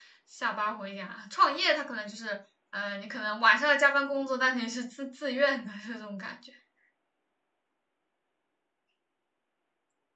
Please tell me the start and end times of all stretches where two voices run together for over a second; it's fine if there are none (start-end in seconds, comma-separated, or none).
none